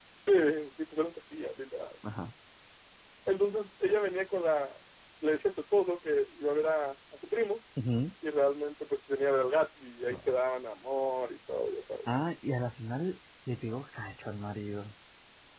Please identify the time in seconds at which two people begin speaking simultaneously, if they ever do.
none

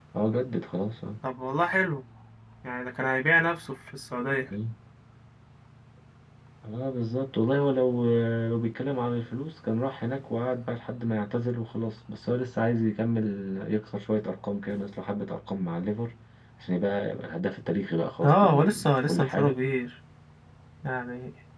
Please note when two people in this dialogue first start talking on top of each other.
18.2 s

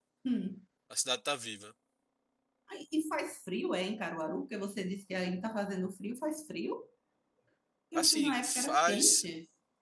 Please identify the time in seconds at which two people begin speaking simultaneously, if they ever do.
8.0 s

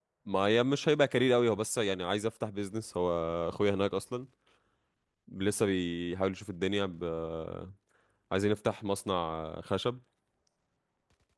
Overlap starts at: none

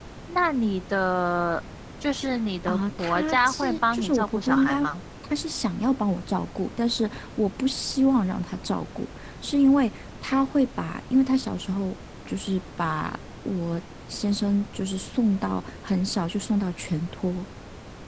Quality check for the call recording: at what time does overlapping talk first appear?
2.7 s

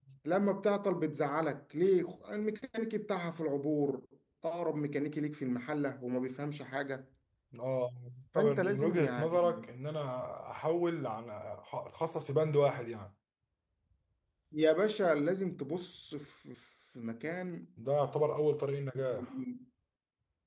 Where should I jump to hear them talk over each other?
8.4 s

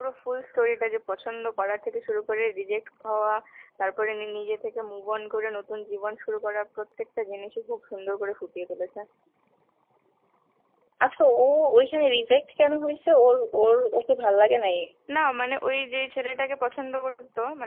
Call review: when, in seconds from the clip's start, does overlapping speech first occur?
none

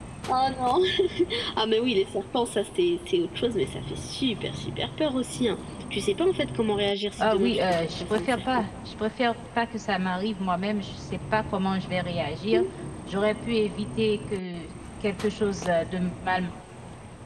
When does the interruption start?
7.2 s

